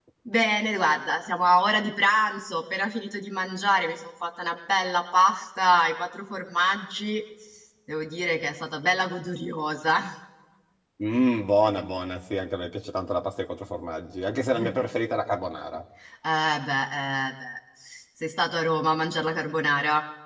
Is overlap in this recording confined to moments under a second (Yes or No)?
Yes